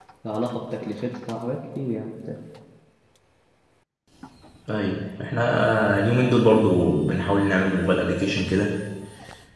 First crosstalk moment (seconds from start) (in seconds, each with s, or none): none